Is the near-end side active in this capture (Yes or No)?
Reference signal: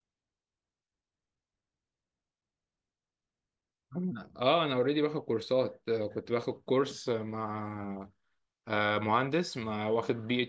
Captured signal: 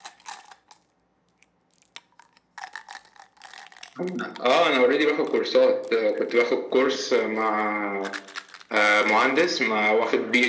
No